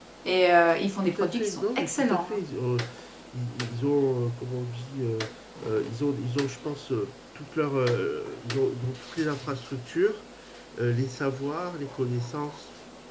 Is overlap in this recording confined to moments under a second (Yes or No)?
No